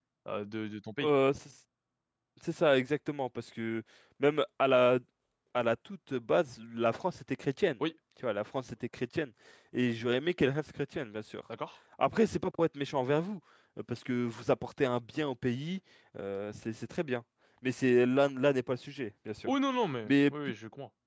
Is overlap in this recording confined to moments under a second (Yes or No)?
Yes